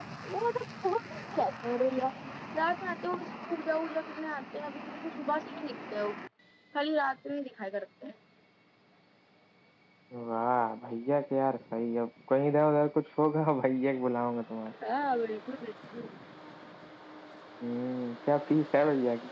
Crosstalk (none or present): none